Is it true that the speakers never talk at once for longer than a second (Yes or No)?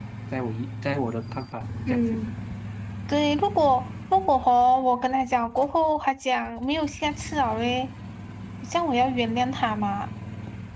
Yes